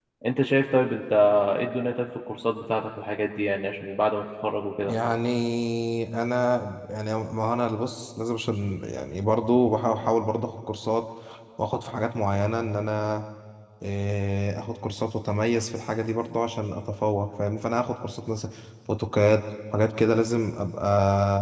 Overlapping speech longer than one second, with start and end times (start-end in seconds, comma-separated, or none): none